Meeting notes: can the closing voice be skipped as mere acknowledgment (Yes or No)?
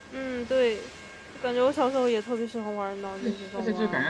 No